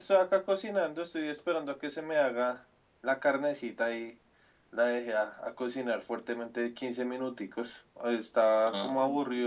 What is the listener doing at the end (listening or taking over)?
listening